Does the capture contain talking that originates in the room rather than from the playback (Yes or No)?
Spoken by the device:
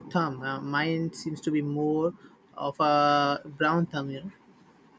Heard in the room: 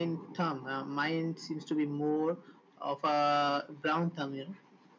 No